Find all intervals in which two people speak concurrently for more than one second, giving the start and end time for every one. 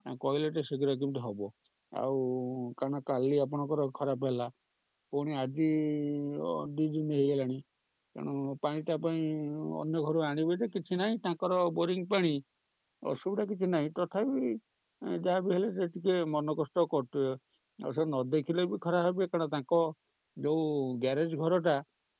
none

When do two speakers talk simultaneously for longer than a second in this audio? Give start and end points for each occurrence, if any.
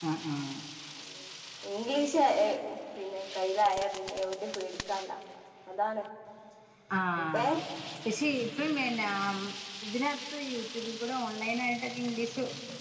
none

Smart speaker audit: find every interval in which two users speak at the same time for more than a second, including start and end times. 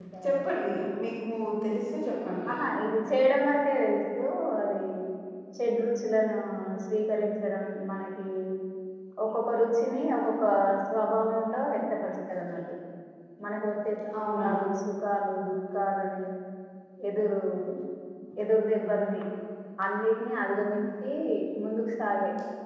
none

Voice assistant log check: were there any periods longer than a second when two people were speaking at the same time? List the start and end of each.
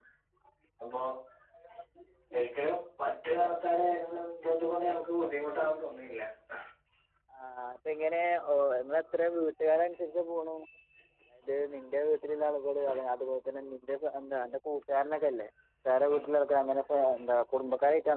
none

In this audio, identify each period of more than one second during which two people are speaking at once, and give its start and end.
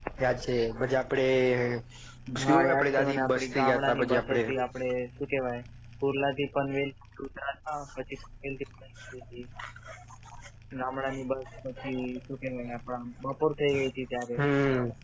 2.4-4.4

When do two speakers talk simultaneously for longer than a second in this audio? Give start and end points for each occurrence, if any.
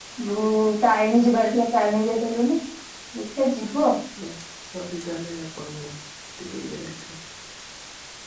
none

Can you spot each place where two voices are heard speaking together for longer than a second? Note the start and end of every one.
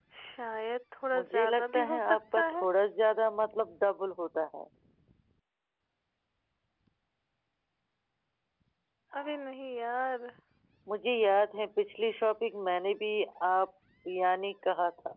1.2-2.6

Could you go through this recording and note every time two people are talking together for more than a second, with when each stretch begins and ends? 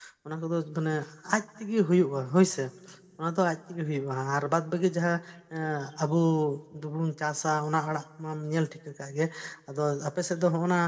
none

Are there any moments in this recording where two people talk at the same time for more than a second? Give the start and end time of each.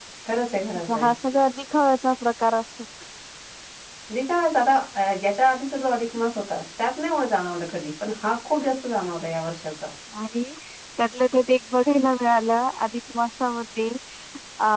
none

